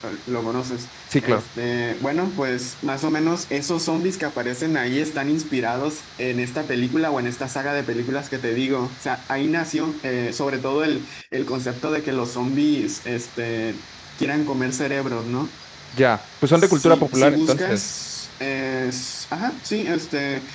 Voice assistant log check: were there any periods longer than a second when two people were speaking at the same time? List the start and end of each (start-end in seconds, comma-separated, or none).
16.6-17.8